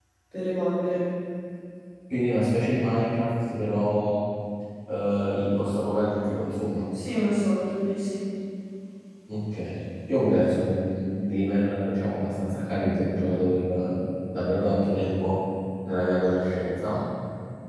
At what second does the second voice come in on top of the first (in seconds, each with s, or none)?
none